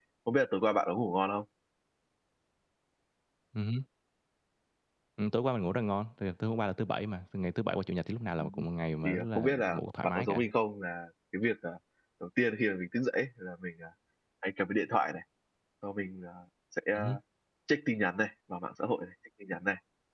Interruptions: present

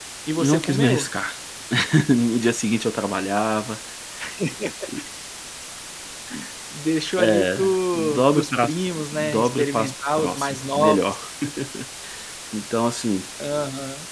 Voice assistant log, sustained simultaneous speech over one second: present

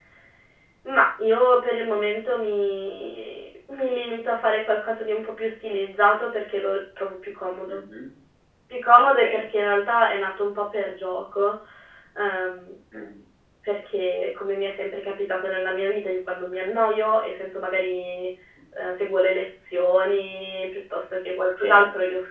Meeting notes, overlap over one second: none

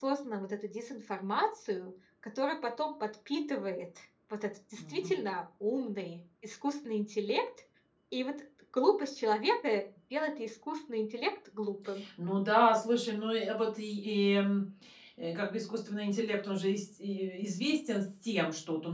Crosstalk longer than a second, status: none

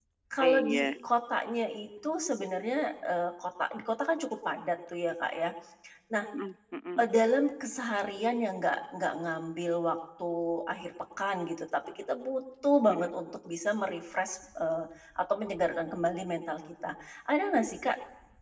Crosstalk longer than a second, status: none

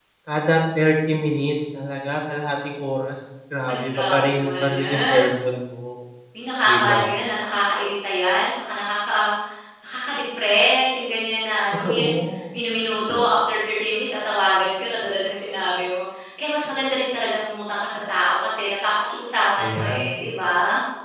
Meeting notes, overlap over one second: present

